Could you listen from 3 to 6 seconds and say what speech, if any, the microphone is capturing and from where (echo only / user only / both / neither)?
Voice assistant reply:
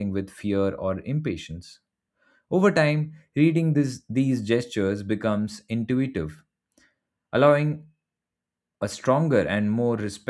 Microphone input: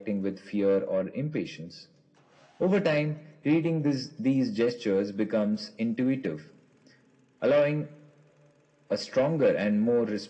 echo only